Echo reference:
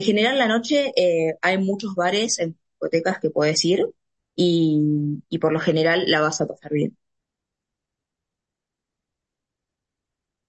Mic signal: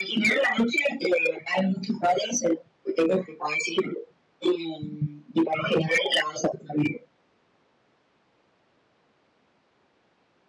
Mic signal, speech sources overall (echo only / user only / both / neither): echo only